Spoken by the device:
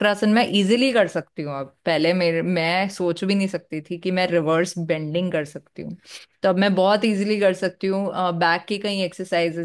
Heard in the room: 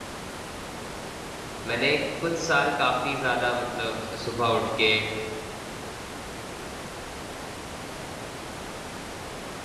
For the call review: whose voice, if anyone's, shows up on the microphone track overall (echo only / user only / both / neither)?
user only